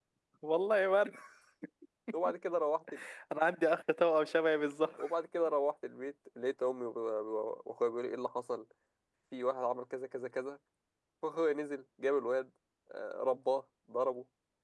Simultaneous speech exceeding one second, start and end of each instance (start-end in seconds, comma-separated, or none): none